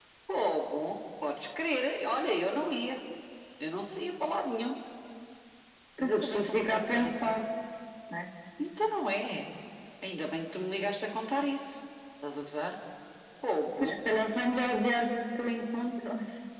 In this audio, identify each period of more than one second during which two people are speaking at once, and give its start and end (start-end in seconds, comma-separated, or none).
6.0-7.3